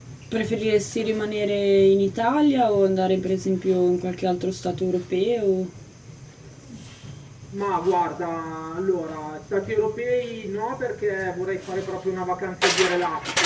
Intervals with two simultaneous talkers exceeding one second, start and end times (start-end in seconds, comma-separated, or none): none